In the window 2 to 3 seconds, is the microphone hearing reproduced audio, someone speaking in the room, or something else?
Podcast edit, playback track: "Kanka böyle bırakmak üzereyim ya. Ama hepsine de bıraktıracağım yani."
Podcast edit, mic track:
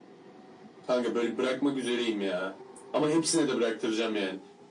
echo only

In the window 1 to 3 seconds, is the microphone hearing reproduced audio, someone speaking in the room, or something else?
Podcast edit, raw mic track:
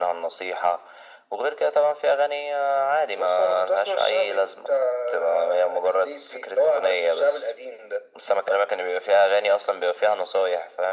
echo only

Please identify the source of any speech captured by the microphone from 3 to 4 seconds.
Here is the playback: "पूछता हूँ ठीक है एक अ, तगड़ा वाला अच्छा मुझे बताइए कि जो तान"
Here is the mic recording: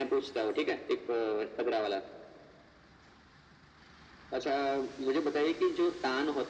neither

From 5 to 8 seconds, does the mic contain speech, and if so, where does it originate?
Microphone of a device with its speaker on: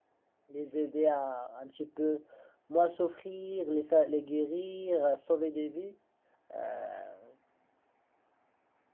user only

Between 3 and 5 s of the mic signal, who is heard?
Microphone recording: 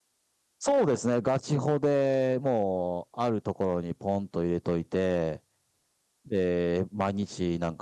user only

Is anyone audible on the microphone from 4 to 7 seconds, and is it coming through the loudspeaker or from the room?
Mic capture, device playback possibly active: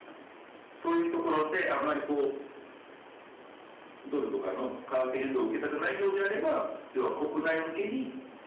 echo only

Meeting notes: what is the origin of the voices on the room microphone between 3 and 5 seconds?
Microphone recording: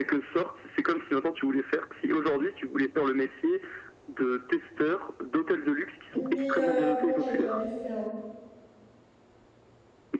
echo only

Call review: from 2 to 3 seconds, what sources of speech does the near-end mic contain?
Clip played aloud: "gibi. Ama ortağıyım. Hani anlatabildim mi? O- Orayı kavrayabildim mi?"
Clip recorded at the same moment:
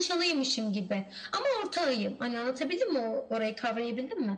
echo only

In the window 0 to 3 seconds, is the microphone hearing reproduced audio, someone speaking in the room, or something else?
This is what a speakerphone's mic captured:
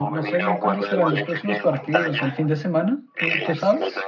both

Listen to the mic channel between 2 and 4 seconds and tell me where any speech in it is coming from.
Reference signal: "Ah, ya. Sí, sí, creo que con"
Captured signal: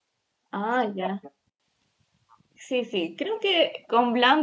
echo only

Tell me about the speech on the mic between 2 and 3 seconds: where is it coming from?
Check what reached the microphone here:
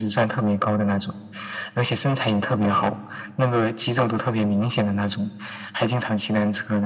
echo only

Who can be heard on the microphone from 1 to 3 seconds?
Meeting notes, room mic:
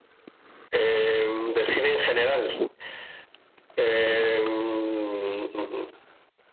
echo only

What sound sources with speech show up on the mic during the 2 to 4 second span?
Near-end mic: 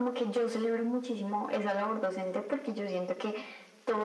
echo only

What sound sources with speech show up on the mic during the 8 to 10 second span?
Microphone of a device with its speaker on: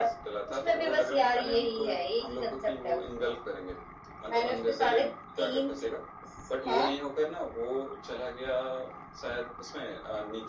echo only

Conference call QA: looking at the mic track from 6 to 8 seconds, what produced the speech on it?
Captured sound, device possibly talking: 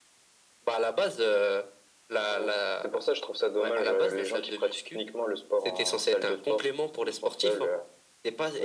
echo only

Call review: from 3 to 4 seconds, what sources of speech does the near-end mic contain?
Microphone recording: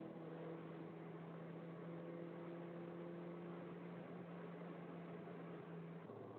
neither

